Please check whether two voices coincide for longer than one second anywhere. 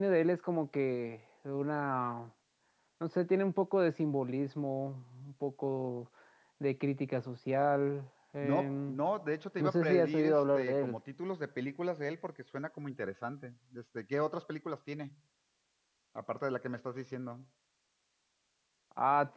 Yes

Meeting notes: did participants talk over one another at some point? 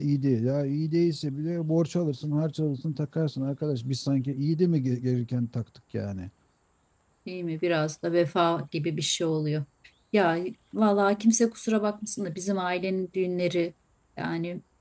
No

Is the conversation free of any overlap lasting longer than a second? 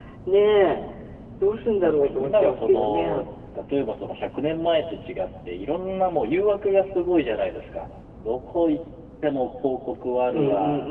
No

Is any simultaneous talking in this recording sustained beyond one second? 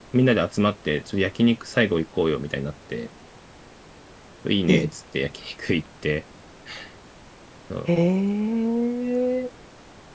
No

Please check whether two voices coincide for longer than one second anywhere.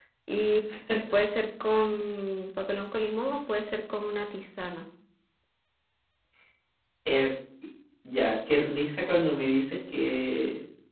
No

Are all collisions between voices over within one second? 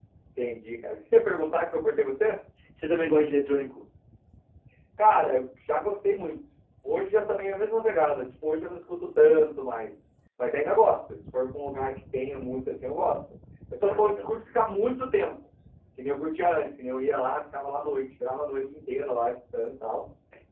Yes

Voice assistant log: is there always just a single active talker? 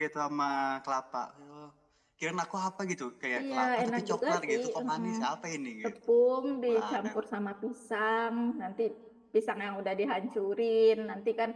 No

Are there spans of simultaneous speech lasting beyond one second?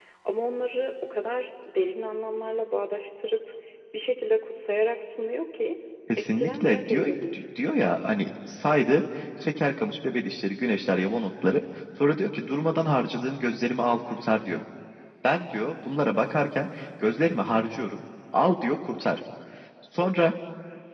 Yes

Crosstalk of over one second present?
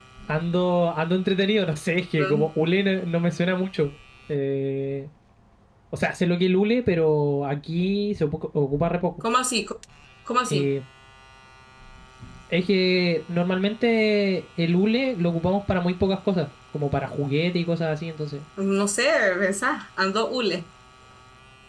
No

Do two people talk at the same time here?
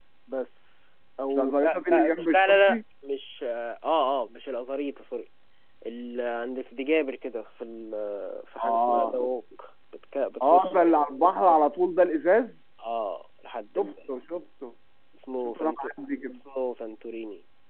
Yes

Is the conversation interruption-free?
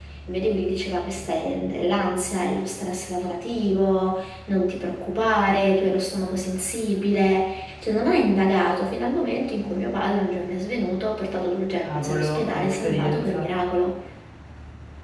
No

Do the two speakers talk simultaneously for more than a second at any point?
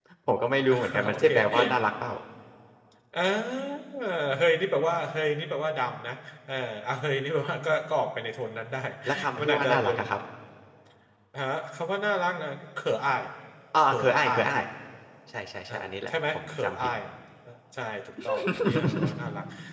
Yes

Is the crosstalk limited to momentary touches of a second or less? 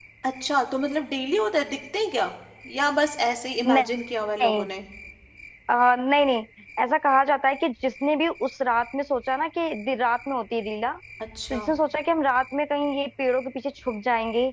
Yes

